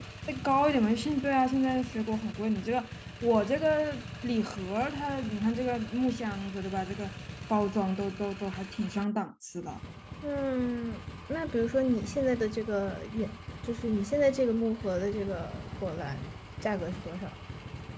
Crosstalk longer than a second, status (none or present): none